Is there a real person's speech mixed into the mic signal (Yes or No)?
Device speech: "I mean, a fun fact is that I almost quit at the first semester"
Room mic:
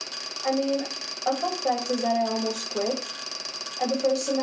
No